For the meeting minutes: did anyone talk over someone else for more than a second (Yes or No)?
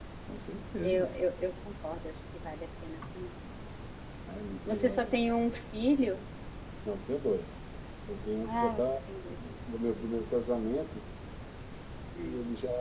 No